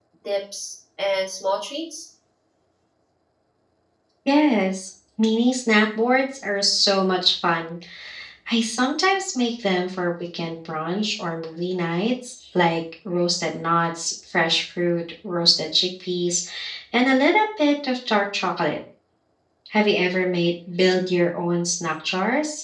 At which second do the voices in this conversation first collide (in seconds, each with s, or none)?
none